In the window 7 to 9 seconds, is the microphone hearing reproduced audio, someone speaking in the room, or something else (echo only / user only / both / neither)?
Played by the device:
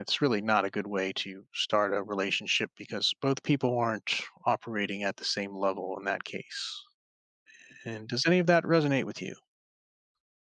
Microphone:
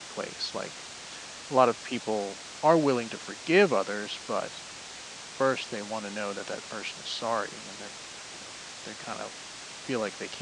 user only